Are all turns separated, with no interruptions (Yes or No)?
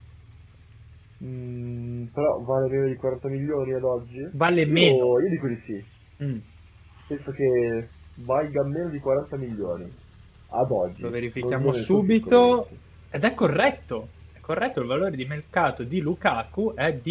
No